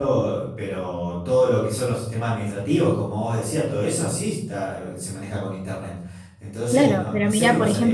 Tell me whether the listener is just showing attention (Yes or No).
No